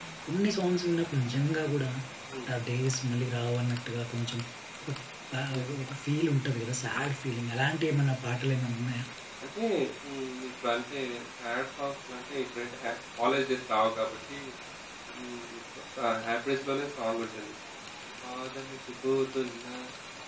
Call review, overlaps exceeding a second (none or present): none